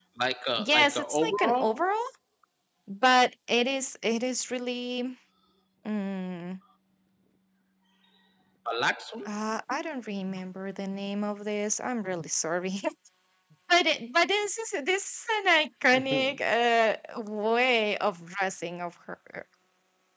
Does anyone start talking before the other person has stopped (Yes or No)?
Yes